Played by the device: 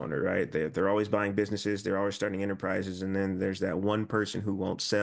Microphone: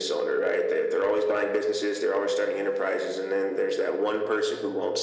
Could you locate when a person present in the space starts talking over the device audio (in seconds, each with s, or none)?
none